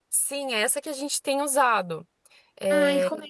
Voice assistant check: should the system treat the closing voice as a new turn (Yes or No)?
Yes